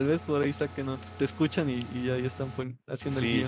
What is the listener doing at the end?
taking over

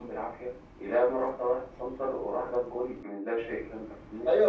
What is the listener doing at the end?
taking over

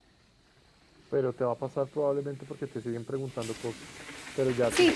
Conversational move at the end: taking over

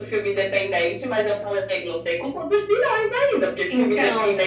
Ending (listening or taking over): listening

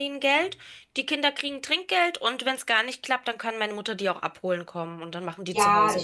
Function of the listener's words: taking over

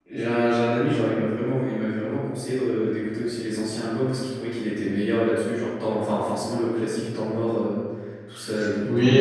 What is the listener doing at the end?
taking over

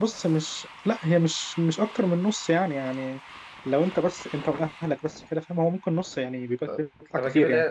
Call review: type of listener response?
taking over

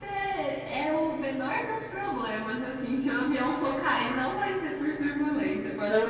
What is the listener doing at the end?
taking over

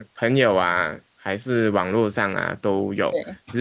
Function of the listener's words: listening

